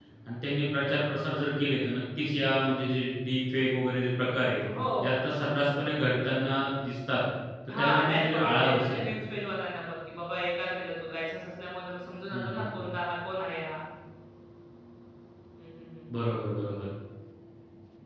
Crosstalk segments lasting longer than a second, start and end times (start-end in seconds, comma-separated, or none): 7.7-9.0